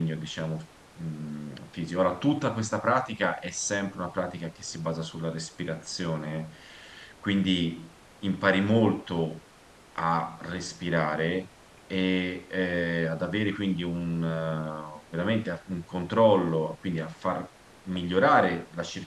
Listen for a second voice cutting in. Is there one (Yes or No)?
No